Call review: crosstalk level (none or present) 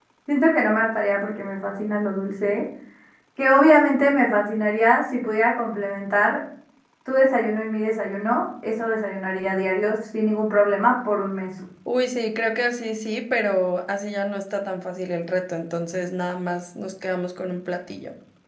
none